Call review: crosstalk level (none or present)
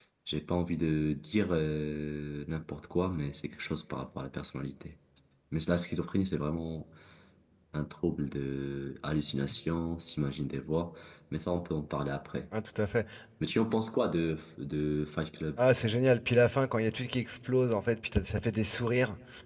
none